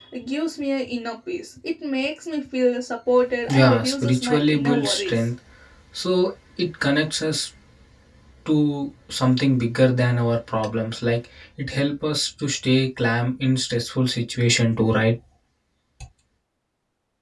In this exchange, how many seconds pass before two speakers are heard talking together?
3.5 s

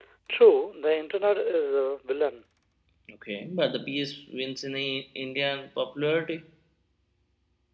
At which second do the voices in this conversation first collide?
none

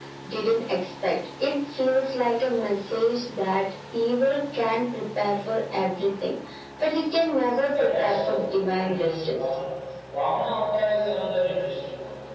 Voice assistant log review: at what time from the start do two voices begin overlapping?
7.7 s

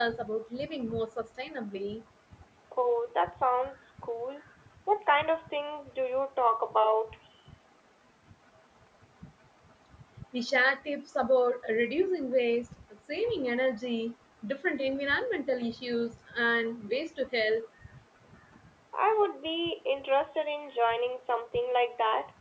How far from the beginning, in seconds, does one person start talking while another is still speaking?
none

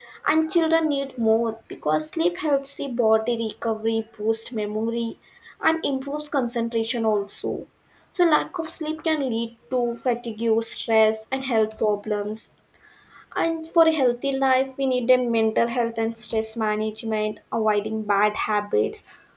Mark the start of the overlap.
none

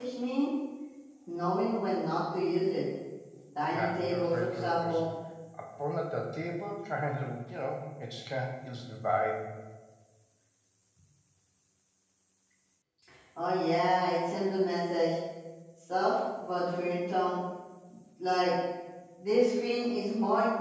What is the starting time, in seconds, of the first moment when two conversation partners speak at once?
3.7 s

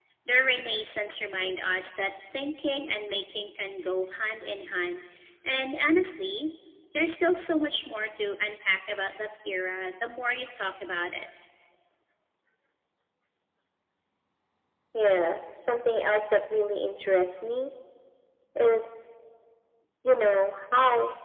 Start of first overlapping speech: none

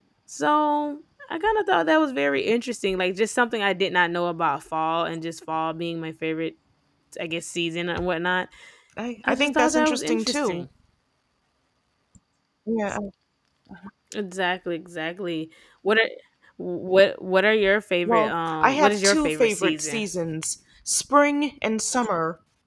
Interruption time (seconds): 9.3 s

